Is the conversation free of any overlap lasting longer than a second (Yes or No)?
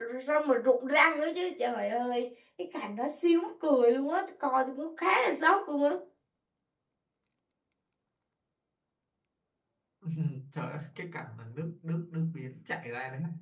Yes